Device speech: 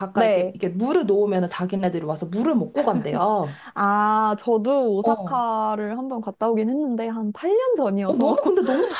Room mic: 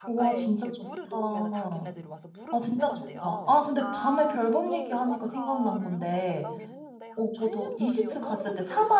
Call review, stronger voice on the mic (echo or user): user